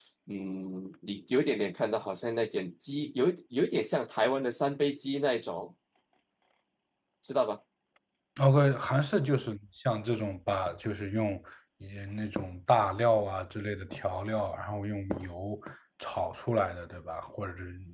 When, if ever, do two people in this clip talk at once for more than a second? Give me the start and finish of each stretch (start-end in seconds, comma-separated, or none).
none